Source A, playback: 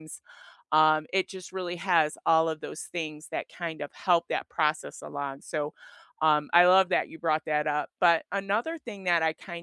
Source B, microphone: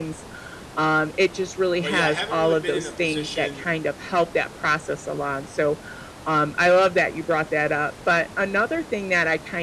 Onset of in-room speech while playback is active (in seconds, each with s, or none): 1.8 s